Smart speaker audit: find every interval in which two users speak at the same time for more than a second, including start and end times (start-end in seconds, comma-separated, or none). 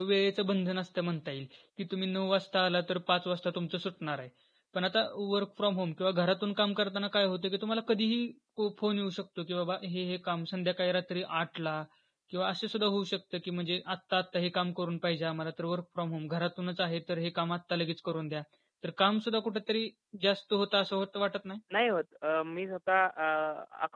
none